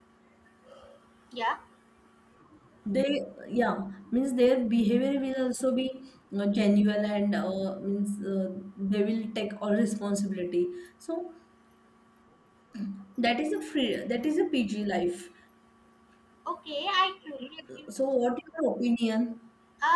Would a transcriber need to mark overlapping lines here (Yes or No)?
No